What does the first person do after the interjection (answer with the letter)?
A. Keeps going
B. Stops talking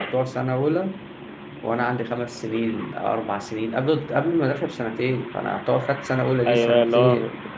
B